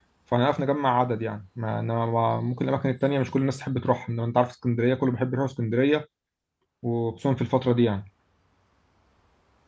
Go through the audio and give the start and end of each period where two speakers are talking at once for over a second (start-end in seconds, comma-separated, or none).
none